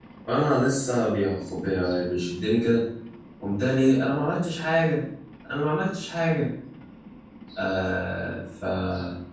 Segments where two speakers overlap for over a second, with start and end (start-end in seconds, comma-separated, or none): none